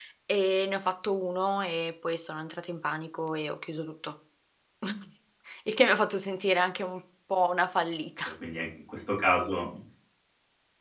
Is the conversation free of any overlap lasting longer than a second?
Yes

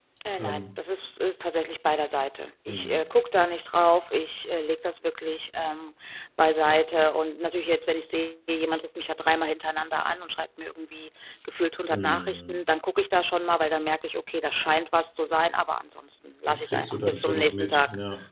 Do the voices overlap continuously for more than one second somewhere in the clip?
Yes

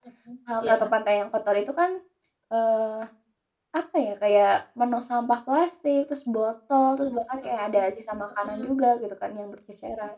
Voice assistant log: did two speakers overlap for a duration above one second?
No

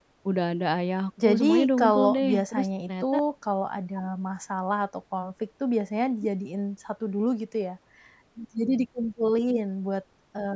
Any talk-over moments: Yes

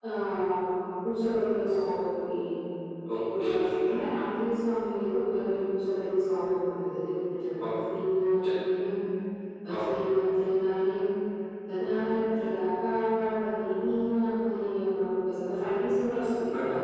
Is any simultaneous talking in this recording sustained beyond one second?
No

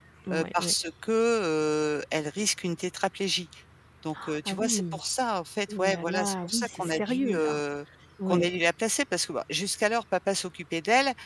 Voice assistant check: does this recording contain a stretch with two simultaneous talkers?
Yes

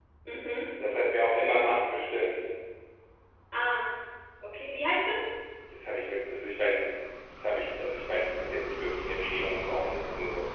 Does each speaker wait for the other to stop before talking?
Yes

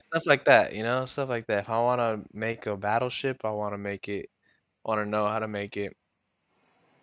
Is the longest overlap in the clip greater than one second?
No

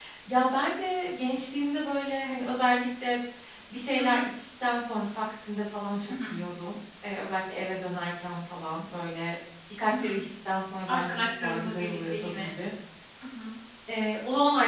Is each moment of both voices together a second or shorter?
No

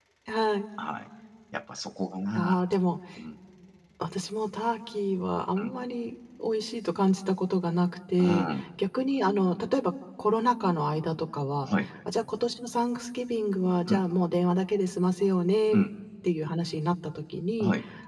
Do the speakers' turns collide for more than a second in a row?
No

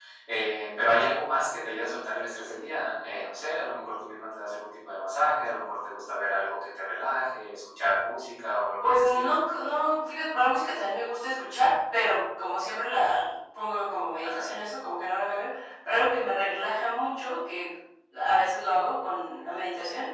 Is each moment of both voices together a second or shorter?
Yes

